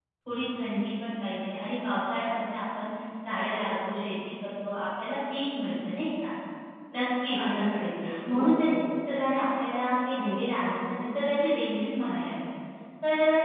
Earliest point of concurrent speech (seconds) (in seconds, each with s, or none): 7.3 s